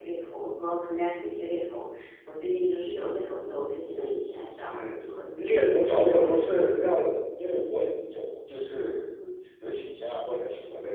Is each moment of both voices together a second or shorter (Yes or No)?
No